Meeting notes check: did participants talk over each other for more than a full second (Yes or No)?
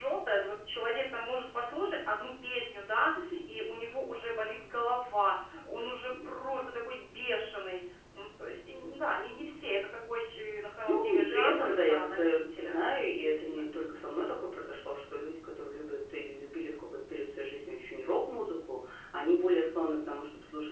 Yes